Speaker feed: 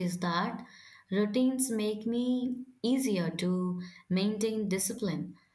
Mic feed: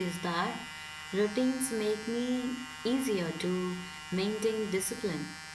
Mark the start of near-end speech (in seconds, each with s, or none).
none